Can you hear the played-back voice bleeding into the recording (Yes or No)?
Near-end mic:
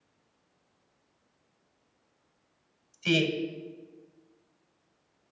No